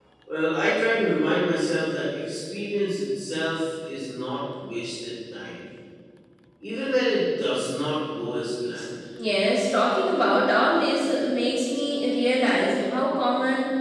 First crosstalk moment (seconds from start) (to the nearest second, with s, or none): none